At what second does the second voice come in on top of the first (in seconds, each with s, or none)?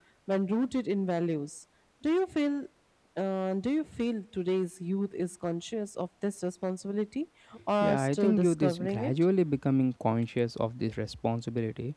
7.8 s